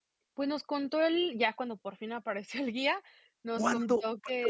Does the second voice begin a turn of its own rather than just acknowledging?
Yes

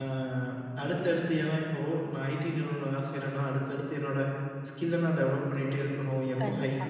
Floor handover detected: No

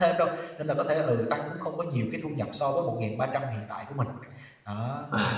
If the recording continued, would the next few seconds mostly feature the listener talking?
Yes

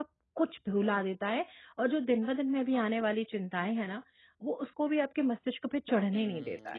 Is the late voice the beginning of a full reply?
Yes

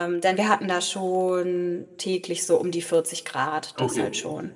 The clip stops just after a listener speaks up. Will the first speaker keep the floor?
No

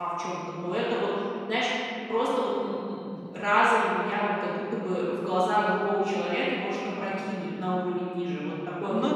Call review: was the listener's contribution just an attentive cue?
No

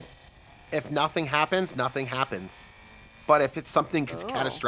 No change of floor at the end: Yes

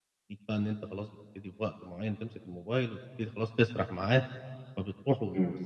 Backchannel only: Yes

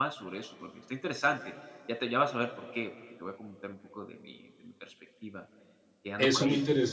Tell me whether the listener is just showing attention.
No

